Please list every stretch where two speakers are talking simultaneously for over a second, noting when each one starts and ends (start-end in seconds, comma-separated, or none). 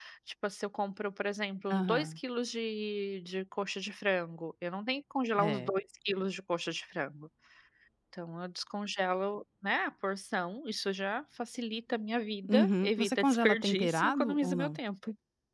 12.5-14.8